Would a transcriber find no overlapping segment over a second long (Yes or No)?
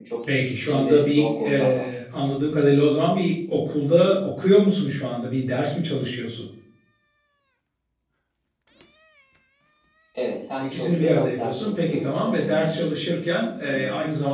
No